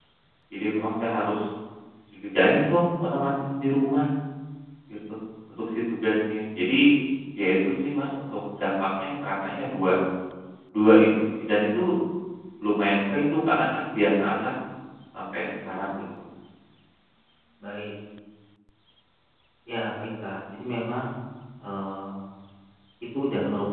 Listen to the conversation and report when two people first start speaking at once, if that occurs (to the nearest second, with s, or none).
none